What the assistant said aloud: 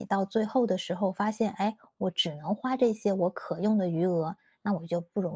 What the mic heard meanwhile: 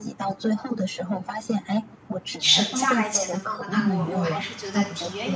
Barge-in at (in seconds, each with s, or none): 2.4 s